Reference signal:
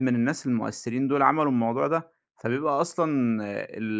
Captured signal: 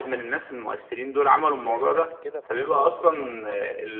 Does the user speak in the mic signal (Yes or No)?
Yes